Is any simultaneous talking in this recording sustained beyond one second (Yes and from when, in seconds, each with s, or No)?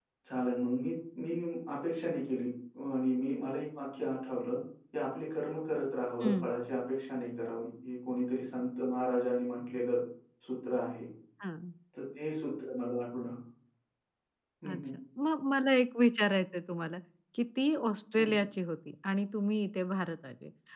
No